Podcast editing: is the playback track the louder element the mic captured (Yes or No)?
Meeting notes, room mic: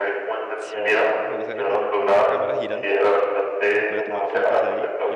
Yes